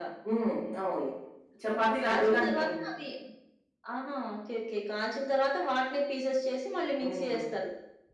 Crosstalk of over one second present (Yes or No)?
Yes